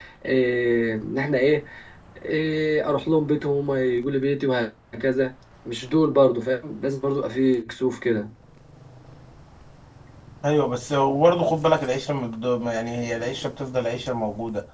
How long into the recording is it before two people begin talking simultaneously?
none

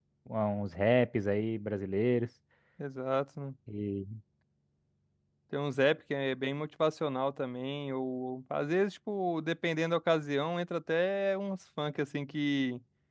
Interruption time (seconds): none

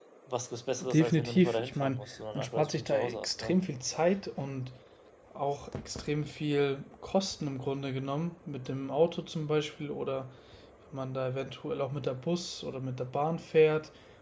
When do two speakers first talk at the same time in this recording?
0.8 s

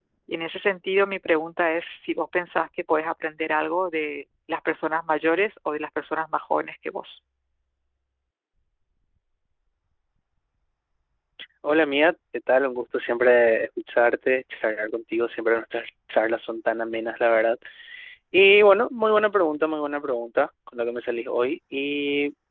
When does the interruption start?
none

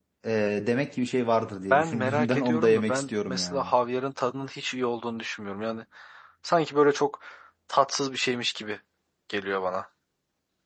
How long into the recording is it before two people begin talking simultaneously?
1.7 s

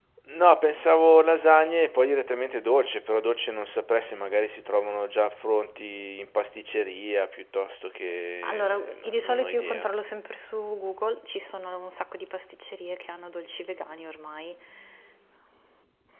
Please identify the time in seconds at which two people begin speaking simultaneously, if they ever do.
8.4 s

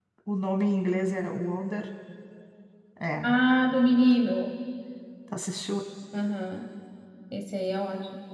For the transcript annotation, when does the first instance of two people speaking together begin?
none

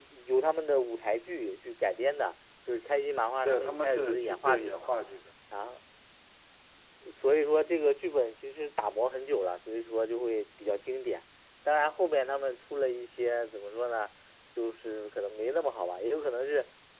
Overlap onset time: 3.4 s

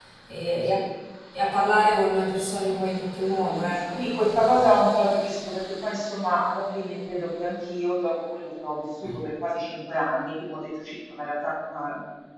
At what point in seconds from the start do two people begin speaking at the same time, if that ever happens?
3.5 s

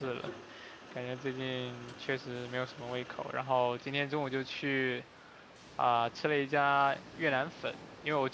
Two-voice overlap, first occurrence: none

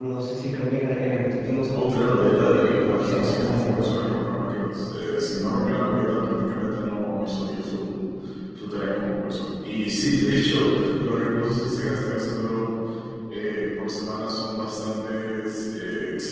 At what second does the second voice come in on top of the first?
1.7 s

